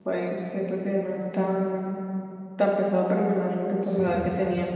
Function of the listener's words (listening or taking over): listening